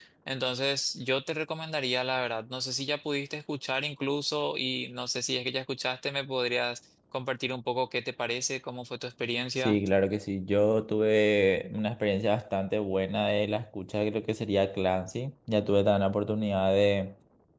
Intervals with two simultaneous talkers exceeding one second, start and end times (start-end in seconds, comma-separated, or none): none